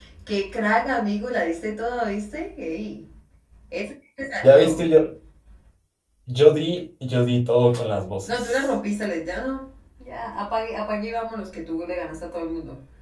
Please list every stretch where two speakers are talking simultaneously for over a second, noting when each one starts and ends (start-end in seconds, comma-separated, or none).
none